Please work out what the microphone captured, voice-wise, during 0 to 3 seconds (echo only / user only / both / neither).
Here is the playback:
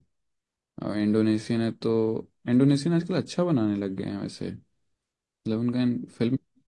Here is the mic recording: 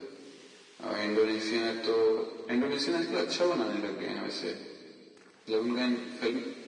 echo only